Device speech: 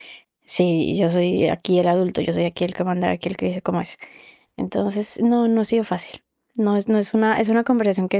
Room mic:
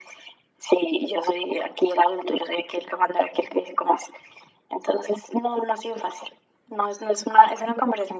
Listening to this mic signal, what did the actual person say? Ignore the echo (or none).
none